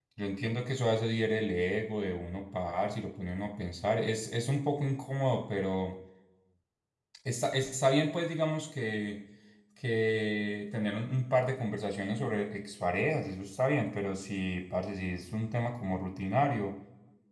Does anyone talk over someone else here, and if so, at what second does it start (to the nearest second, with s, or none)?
none